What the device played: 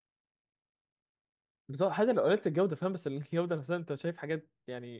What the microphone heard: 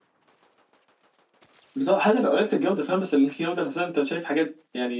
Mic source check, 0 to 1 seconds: neither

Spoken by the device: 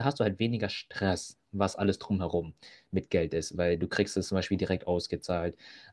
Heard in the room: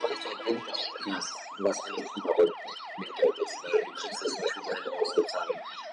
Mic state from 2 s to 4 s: echo only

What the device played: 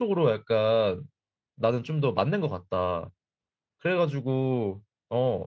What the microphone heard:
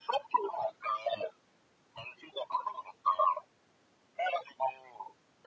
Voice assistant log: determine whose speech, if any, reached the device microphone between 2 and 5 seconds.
echo only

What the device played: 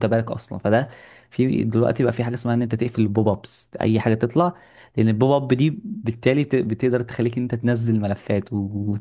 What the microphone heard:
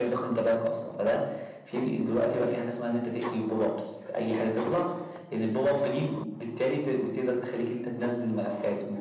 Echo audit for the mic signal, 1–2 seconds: echo only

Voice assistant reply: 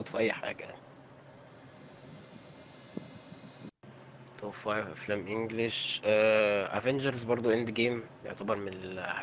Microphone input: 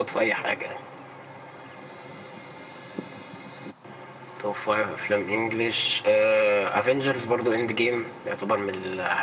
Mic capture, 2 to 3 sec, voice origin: neither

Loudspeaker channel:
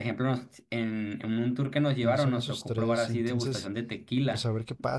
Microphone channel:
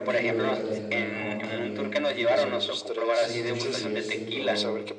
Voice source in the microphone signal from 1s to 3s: both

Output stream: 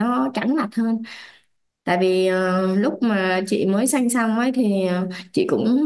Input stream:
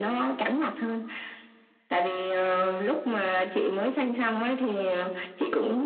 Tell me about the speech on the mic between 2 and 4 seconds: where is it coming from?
echo only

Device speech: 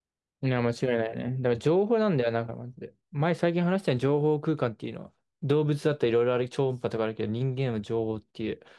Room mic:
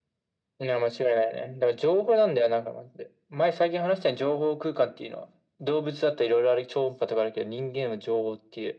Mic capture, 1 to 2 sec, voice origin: echo only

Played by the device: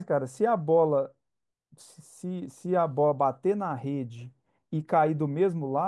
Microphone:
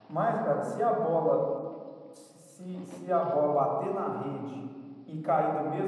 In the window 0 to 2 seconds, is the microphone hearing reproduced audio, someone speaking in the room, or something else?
echo only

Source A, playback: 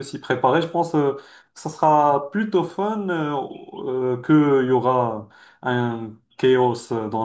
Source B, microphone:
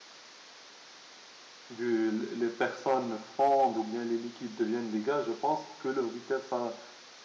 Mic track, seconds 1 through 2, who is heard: user only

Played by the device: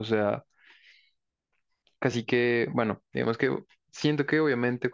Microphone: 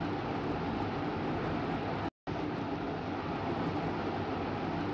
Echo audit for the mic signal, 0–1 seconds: neither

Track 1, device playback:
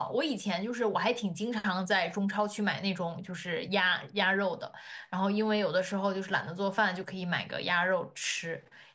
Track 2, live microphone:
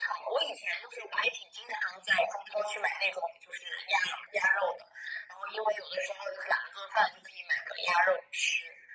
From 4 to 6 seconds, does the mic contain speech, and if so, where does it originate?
echo only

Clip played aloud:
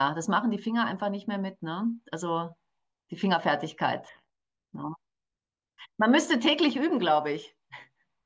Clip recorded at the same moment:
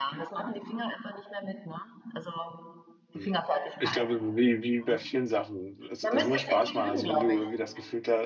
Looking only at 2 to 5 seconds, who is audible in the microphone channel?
both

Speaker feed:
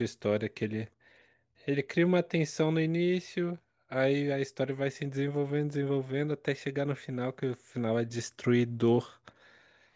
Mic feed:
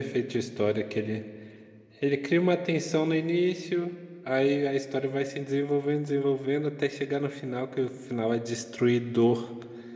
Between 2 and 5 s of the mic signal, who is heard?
echo only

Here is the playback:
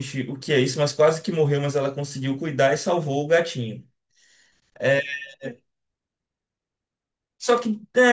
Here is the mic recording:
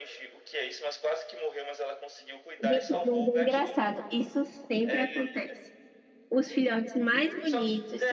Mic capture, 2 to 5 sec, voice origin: both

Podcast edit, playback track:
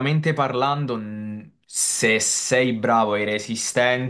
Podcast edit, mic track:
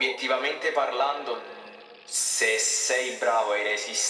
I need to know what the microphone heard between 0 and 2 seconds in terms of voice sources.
echo only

